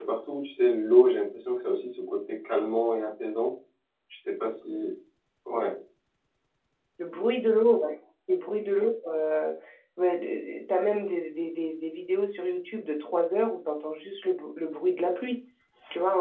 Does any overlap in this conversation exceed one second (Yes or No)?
No